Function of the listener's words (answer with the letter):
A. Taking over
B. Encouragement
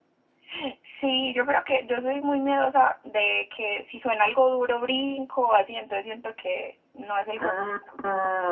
A